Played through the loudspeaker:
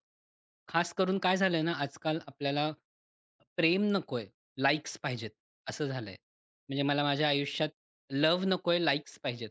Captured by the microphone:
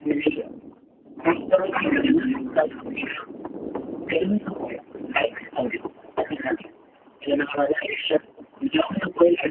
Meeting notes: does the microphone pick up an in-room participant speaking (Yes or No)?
Yes